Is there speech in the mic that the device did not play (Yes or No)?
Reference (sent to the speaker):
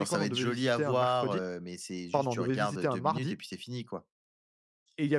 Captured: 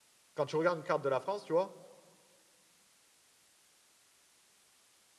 Yes